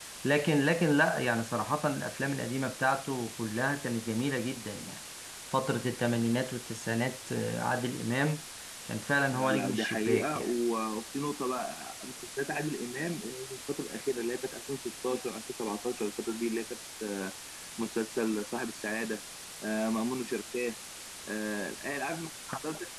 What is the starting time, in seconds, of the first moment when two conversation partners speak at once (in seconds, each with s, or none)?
9.3 s